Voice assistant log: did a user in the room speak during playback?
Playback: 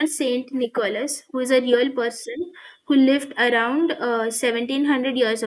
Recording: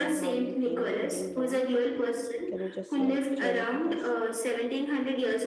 Yes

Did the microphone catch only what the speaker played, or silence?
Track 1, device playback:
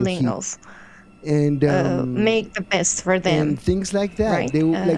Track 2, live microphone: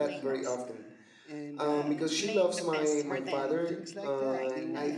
No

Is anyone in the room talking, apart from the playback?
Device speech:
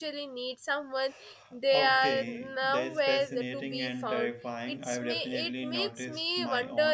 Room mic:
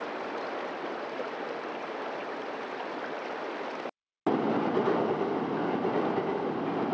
No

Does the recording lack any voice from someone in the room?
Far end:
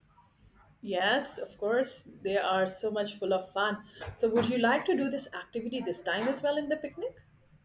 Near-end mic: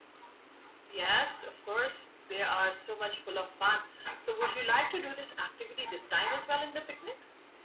Yes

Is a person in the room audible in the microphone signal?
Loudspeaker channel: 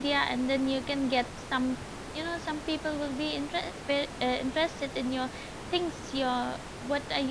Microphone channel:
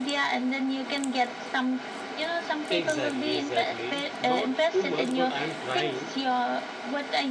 Yes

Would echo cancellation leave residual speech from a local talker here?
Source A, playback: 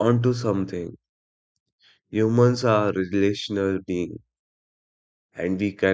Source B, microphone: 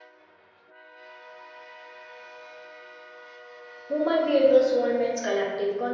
Yes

